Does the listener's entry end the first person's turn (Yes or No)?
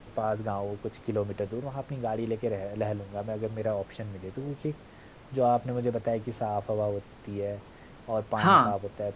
No